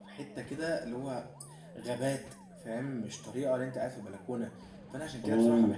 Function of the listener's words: listening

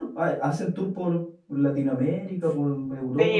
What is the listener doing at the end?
taking over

